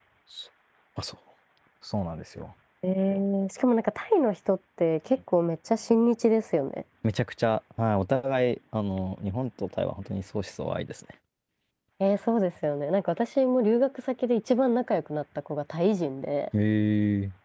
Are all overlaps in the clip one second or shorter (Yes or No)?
Yes